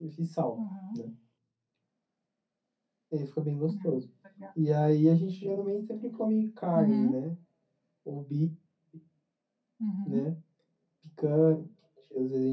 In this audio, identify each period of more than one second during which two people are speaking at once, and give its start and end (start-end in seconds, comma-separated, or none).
none